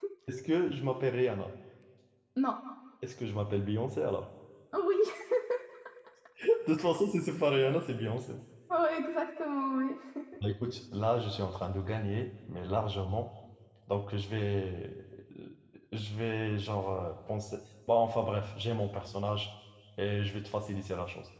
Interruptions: none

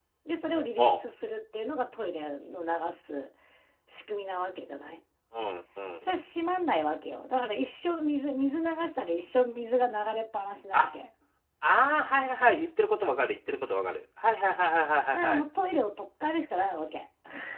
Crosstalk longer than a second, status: none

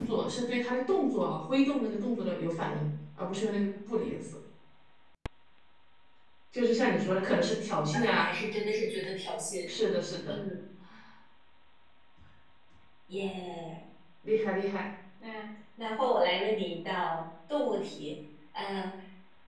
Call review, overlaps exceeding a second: none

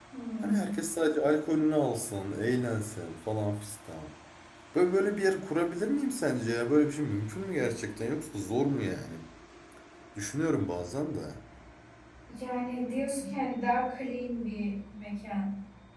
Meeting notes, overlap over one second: none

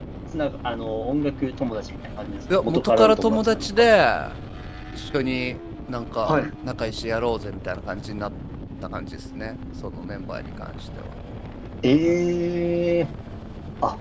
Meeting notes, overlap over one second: present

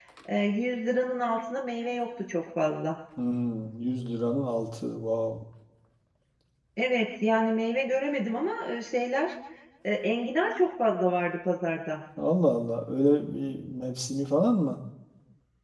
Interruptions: none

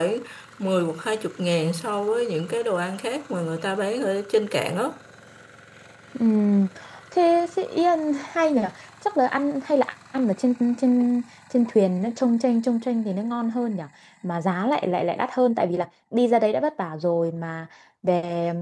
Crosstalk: none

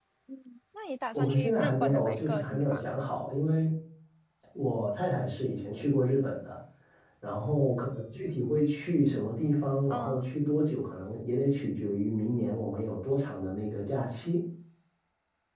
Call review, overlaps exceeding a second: present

